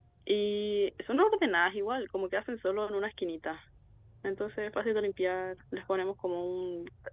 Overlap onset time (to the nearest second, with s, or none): none